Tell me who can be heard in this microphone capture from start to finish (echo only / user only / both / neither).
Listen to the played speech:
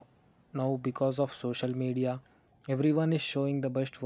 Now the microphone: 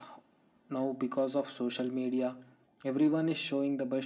echo only